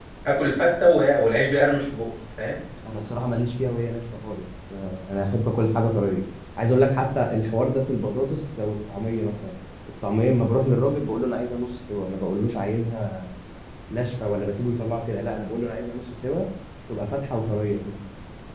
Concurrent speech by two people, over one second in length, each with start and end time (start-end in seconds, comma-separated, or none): none